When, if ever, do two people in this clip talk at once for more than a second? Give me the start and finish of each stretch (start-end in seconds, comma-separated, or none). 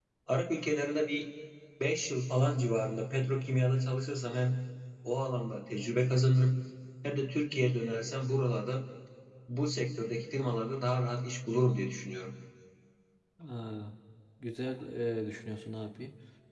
none